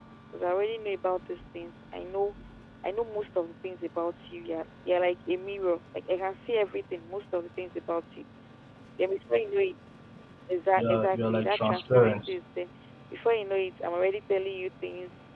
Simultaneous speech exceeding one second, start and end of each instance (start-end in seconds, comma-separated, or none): 10.8-12.3